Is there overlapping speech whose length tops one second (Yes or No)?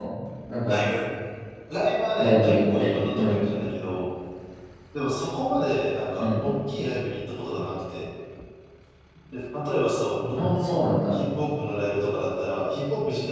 Yes